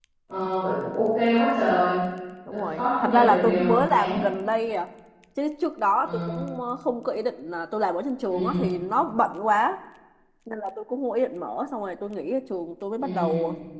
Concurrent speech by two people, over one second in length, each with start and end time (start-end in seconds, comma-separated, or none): 2.5-4.2